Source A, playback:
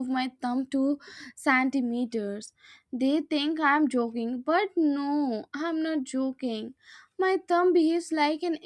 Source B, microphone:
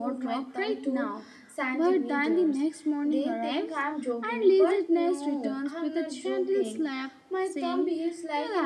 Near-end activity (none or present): present